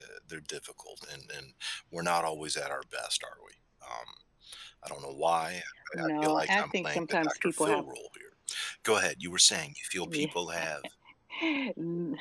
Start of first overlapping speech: 5.9 s

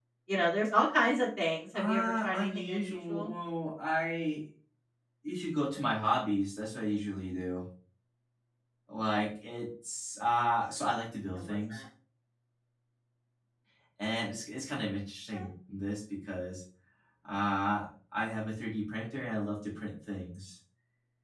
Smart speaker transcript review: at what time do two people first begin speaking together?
1.7 s

